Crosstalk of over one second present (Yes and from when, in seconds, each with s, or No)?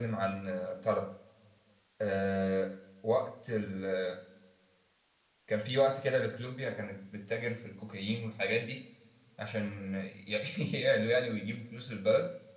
No